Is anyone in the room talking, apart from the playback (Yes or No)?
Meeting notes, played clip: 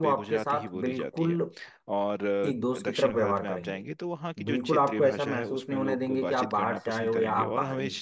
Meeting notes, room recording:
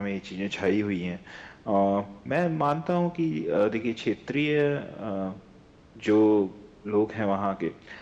Yes